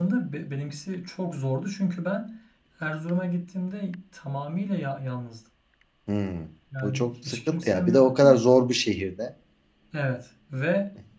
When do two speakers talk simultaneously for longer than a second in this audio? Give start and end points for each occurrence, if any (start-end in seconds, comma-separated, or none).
6.8-8.3